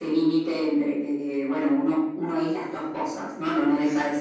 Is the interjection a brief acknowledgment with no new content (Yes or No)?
Yes